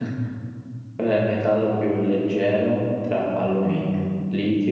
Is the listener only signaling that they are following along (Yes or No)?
Yes